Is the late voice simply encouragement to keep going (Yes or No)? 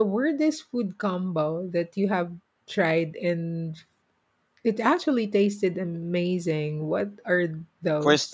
No